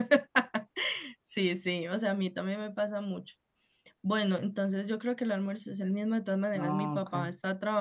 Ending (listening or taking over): listening